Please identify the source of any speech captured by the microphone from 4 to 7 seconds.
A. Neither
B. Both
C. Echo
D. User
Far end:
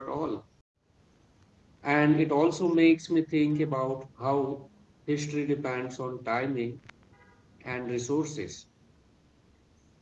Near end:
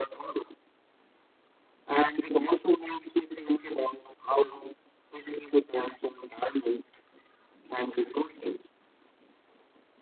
C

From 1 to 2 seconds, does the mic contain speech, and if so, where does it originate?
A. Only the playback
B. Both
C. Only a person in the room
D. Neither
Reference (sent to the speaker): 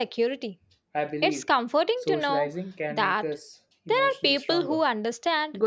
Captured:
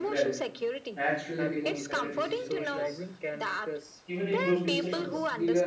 B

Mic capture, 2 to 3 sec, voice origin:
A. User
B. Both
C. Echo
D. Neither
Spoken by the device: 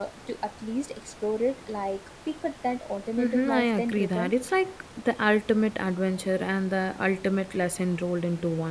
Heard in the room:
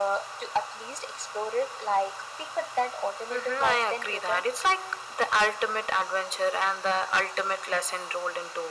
C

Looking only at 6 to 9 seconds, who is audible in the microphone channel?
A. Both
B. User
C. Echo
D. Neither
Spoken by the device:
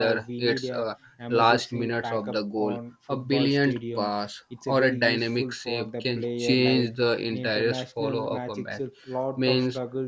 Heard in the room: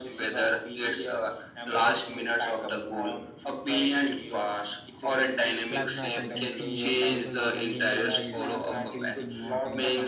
A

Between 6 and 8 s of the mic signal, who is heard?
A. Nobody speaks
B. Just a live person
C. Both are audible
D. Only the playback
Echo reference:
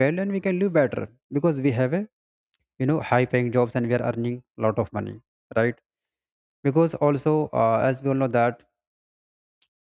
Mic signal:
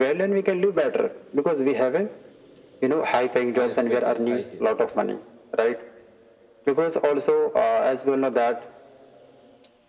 D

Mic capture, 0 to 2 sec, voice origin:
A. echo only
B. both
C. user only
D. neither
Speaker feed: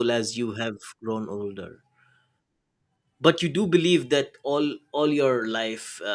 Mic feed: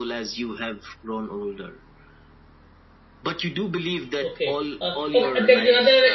A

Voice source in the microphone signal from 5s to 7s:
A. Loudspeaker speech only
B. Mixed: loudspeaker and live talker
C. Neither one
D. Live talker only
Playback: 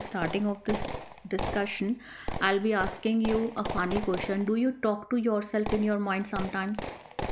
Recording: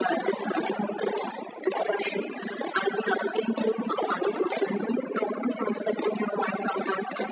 A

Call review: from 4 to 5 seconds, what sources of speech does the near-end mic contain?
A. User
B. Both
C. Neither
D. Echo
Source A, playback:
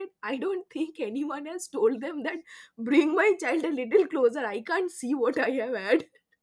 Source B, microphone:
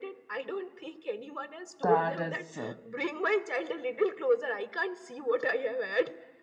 D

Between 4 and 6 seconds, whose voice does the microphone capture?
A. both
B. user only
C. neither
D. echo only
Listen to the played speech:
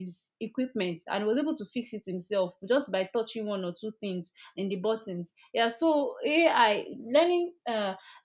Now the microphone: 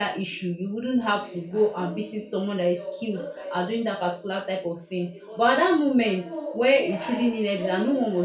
A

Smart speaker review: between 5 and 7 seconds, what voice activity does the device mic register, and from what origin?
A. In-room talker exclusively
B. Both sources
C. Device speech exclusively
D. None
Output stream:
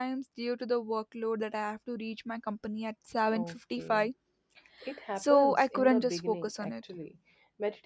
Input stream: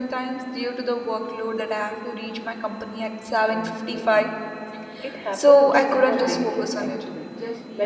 B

